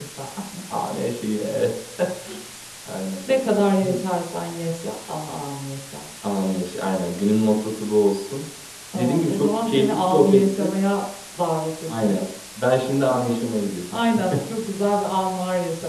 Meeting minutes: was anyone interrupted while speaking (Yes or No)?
Yes